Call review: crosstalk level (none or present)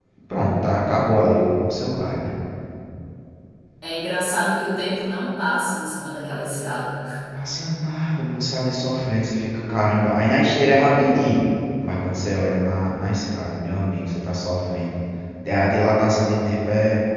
none